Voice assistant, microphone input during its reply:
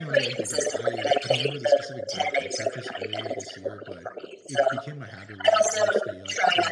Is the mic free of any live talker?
No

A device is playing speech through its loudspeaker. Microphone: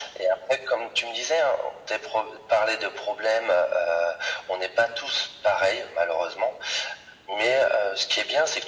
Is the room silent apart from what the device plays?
Yes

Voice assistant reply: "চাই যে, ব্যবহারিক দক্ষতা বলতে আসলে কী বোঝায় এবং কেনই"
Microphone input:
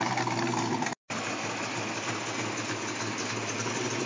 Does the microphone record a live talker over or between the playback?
No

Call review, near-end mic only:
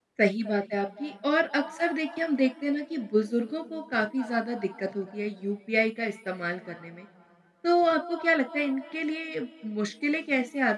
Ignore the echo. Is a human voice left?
Yes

